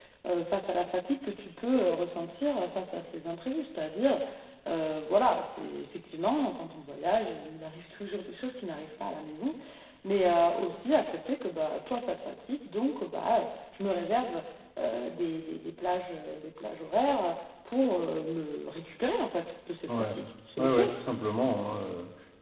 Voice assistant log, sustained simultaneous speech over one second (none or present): none